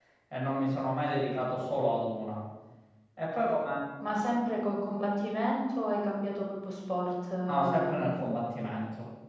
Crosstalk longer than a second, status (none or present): none